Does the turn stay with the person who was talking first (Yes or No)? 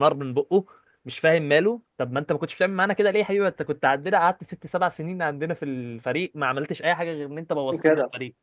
Yes